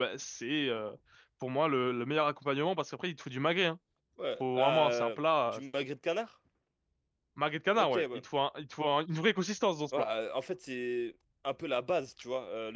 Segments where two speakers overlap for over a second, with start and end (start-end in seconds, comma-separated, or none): 4.4-5.6